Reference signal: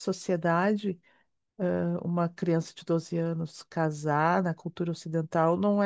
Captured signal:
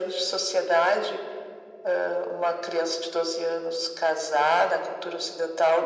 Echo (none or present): present